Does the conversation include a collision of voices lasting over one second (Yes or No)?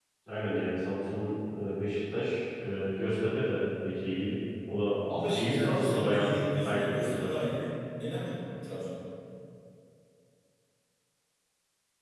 Yes